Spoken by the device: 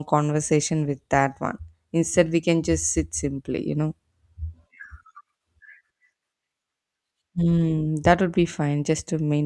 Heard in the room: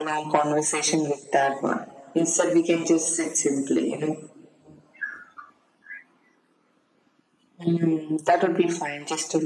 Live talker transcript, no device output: none

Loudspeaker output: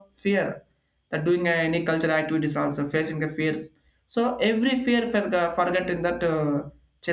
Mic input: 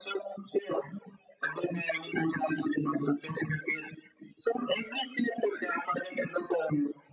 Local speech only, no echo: none

